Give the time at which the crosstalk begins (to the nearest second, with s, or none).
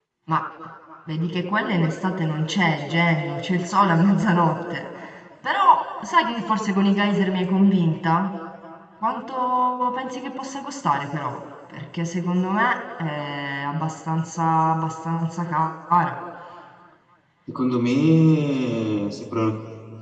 none